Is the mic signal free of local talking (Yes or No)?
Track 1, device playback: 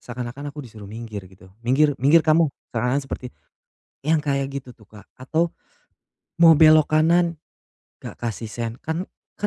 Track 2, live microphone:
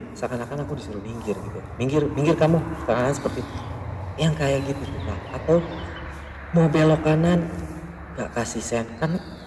Yes